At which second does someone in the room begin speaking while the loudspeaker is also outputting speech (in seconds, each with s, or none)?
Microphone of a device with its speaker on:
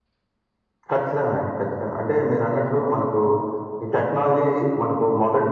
none